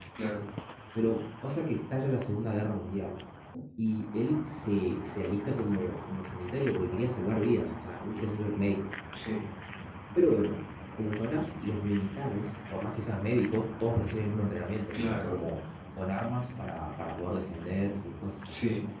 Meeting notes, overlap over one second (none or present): none